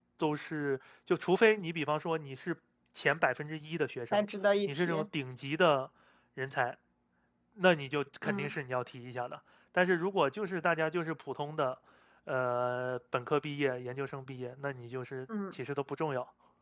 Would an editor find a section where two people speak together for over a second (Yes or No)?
No